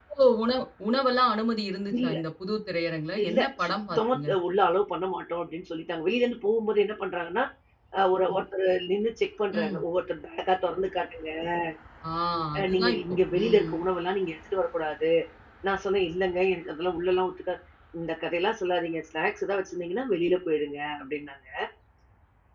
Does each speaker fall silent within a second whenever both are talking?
No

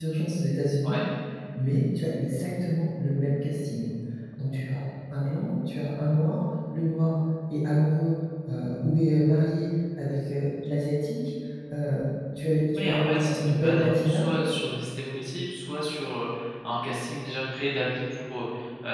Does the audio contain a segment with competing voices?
Yes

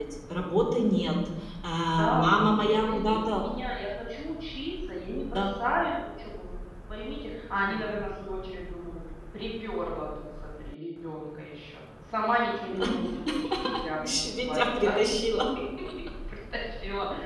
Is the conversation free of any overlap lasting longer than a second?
No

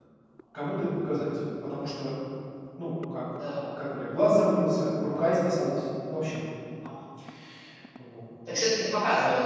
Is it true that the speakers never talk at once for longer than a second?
Yes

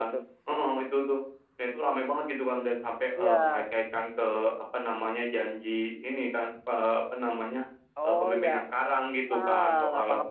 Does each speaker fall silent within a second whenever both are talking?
No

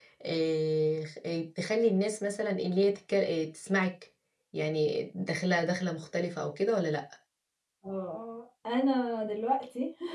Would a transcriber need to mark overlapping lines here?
No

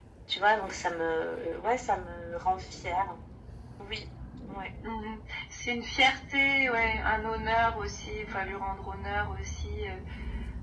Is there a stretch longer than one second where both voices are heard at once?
No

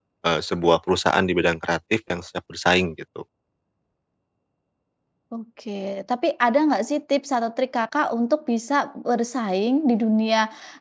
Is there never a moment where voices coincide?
Yes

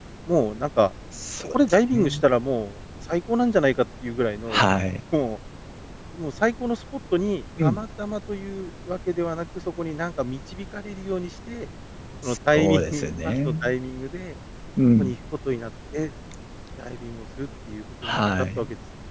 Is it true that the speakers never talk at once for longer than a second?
No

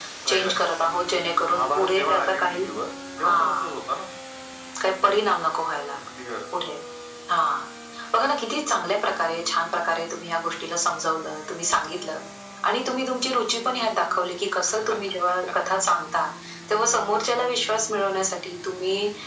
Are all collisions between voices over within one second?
No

